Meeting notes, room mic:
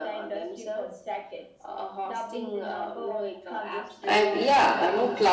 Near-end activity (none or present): present